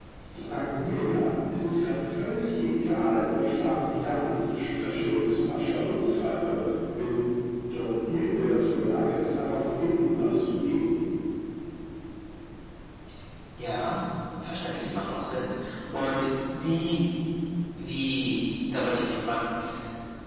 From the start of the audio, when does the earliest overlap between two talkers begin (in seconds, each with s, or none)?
none